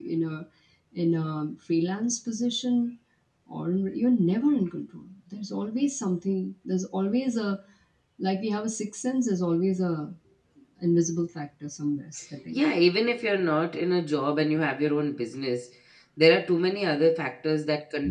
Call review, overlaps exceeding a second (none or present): none